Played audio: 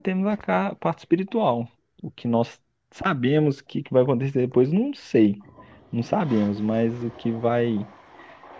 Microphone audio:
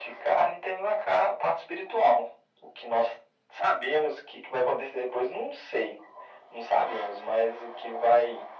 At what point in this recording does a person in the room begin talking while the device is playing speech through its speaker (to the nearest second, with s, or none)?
none